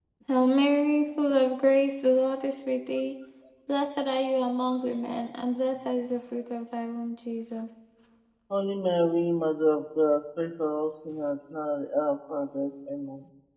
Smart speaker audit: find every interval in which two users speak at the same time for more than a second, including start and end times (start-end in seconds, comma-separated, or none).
none